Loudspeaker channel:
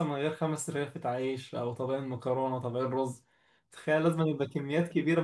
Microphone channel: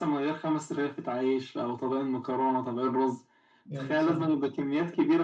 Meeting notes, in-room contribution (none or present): present